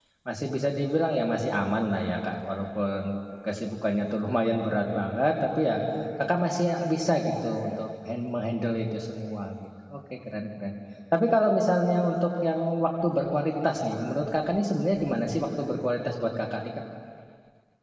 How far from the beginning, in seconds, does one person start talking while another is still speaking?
none

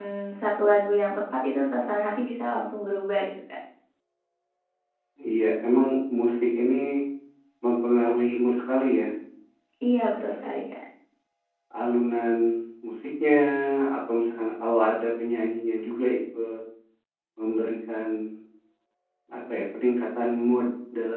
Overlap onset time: none

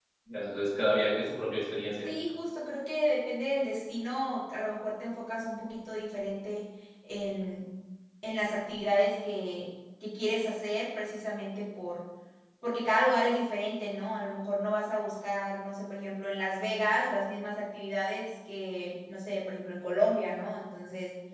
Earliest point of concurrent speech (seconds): none

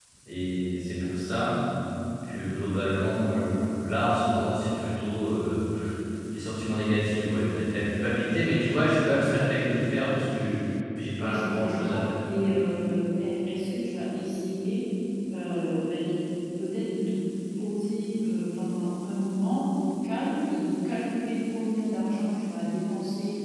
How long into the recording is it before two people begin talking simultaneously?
11.1 s

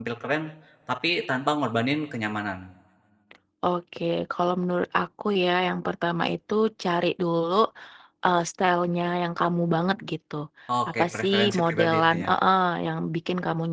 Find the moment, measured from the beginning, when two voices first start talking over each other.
10.9 s

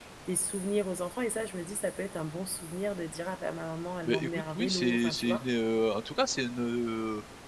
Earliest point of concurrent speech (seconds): 4.0 s

